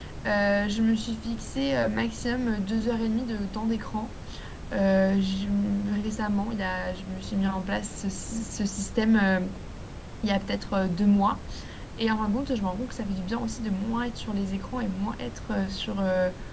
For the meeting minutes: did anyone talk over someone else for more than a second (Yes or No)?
No